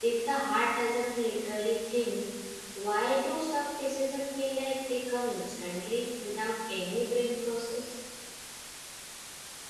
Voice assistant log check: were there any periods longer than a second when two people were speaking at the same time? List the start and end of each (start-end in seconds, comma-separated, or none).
none